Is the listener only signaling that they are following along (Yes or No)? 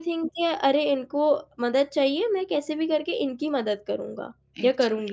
No